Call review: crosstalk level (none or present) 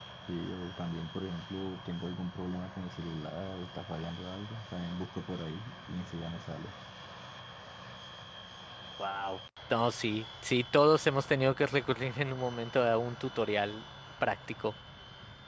none